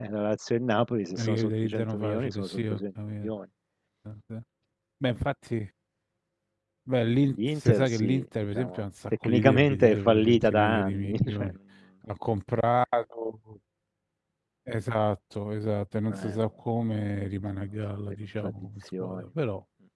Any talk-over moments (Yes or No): Yes